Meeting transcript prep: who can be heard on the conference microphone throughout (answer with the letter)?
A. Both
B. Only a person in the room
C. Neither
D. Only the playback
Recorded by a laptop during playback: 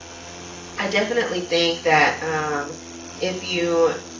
B